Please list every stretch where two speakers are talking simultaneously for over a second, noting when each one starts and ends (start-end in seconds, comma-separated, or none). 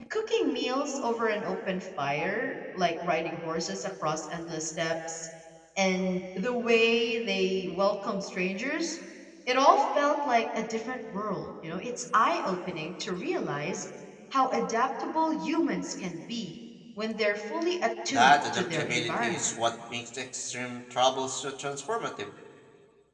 18.1-19.5